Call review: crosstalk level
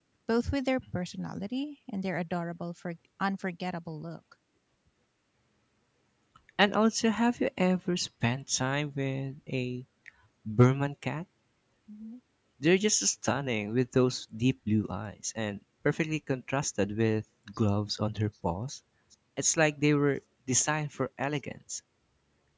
none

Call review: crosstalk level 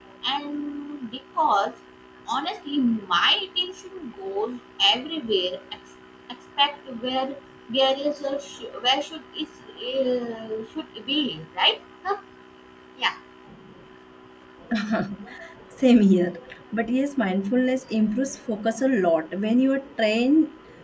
none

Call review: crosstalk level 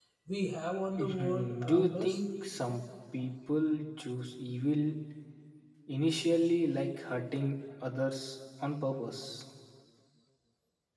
present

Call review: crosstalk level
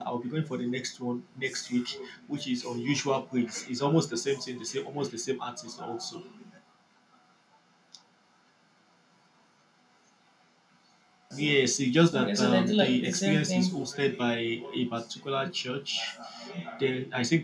present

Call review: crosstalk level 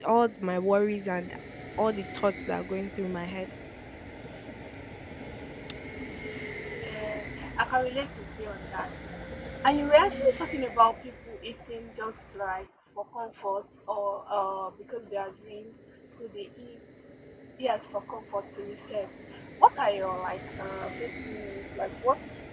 none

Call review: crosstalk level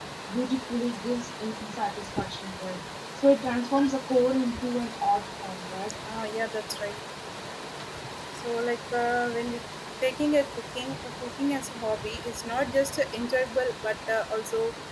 none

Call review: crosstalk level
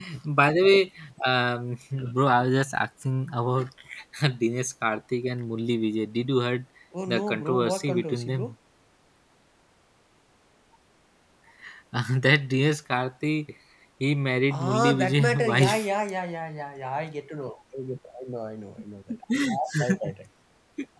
present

